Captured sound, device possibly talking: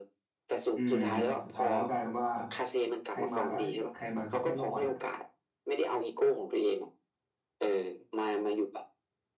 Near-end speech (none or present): present